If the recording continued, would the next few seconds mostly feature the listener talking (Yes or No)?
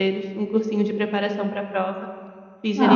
Yes